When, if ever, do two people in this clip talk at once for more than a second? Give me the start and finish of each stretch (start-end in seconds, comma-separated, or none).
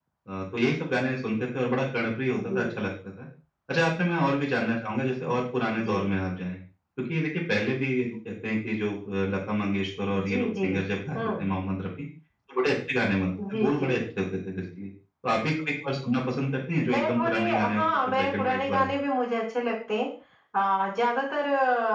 16.9-18.9